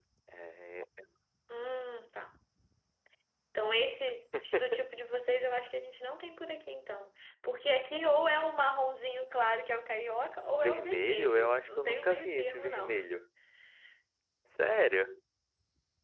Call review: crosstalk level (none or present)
present